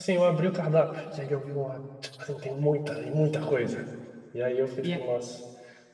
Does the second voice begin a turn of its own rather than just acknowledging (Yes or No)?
No